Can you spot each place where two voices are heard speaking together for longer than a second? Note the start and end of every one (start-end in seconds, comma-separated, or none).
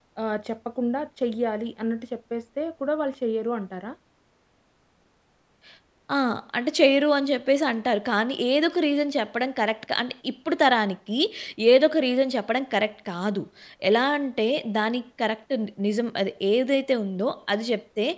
none